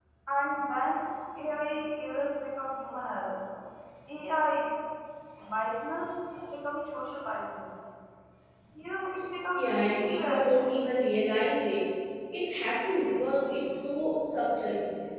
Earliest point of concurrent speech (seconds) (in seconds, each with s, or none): 9.5 s